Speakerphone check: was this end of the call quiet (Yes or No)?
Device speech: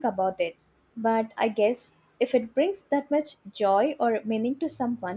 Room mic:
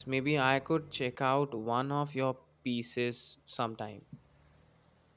No